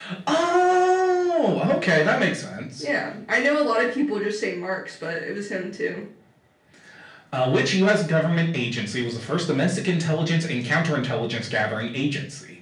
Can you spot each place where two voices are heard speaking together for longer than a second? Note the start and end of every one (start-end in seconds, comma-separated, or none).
none